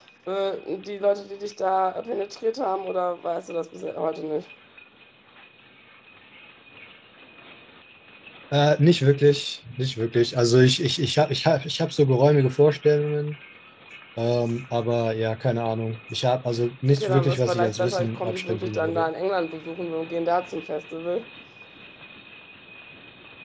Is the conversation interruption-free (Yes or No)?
No